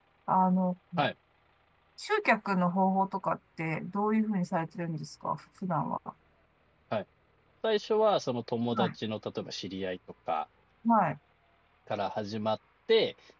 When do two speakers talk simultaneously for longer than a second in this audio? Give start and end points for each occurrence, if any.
none

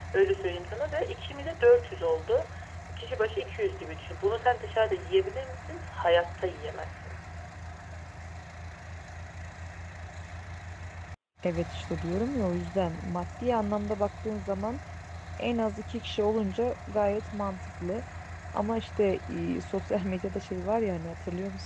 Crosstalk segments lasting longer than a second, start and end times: none

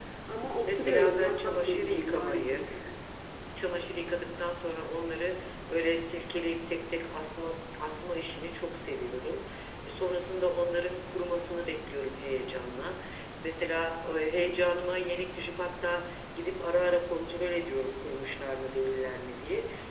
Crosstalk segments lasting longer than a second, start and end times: 0.6-2.6

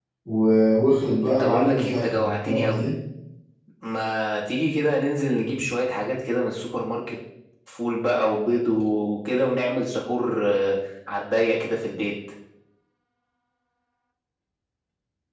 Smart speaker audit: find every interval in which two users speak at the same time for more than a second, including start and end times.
1.2-2.9

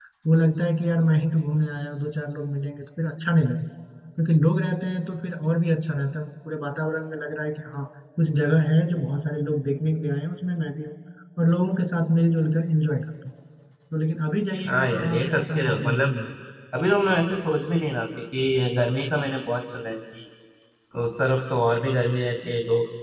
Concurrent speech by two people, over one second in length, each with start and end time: 14.6-16.1

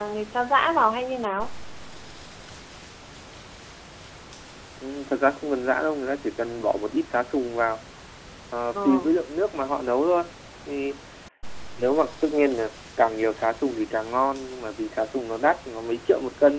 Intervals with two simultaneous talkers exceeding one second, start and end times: none

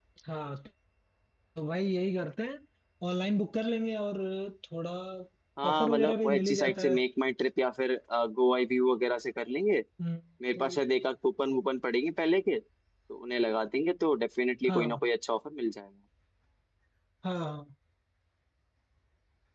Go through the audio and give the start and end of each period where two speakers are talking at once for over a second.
5.7-6.9

